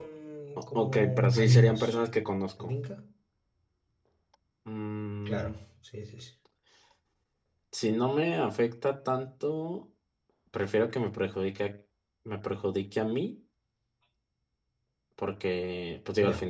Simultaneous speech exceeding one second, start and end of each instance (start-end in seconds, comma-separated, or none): 0.8-1.9